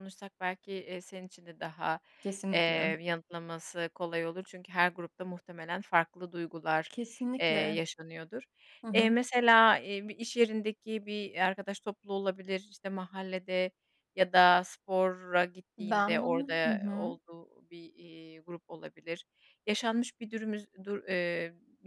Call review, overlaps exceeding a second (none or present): present